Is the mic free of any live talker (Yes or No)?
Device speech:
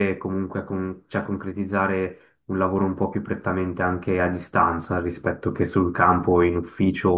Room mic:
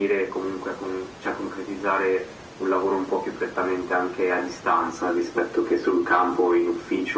Yes